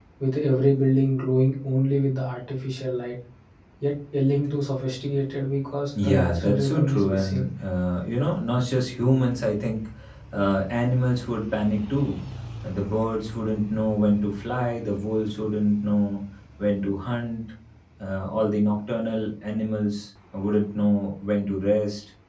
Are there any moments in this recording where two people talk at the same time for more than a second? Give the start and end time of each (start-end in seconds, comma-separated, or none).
6.0-7.5